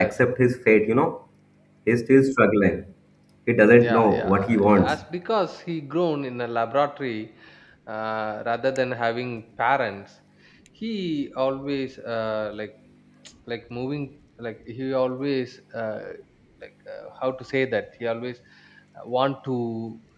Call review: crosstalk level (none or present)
present